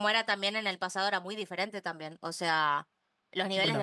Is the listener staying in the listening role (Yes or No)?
Yes